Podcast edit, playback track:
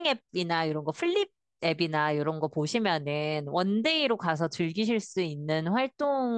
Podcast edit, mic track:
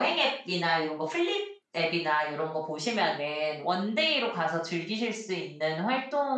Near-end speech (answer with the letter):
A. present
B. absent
B